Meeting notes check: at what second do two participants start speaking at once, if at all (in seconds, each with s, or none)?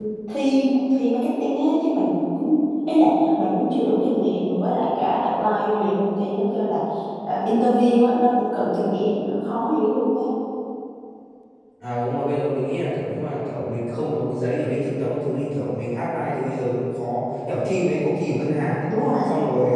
none